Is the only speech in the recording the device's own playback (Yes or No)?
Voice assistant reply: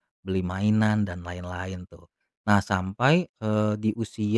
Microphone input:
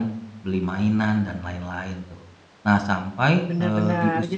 No